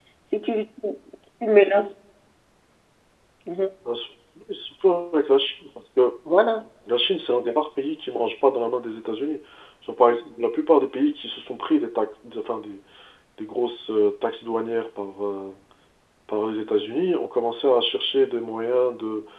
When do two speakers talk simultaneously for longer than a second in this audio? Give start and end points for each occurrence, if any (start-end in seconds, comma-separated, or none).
none